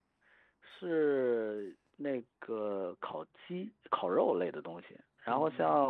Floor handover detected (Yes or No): No